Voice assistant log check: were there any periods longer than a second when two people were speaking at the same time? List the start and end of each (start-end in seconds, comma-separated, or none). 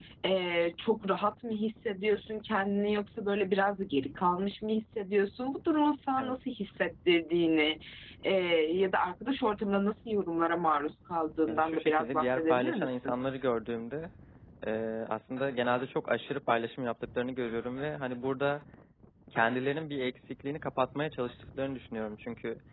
11.5-13.2